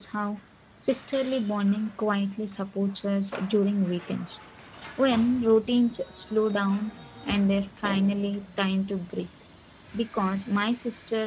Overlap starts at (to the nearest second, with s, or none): none